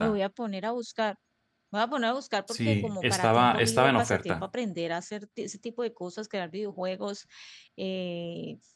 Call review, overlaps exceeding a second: present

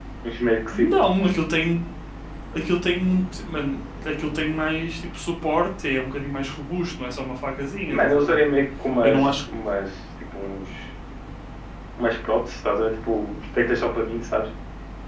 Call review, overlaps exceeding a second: none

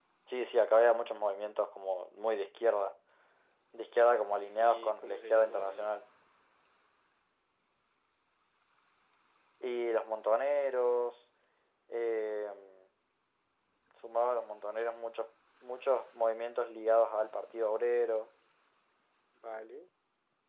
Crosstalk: present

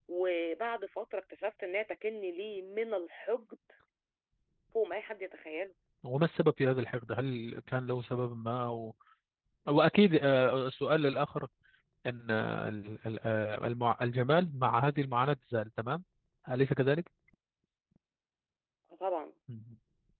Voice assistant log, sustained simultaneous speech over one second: none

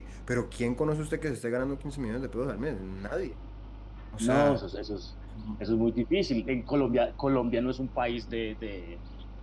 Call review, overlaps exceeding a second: none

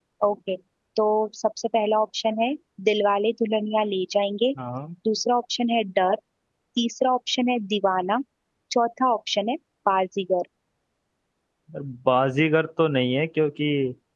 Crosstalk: none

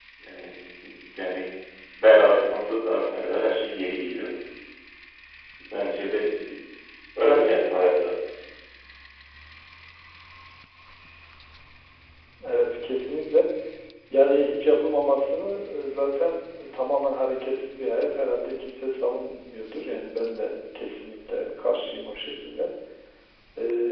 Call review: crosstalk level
none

